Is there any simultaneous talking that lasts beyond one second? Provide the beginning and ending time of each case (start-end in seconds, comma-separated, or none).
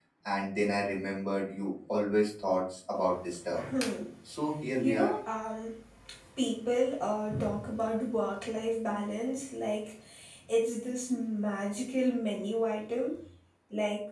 none